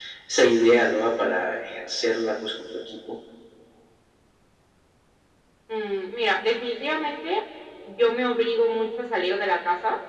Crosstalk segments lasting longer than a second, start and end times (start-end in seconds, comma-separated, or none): none